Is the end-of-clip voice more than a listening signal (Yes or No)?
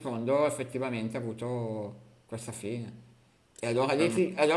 No